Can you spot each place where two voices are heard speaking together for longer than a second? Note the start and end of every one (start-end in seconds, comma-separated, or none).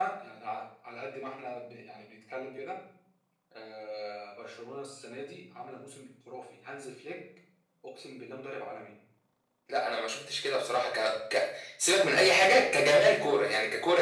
none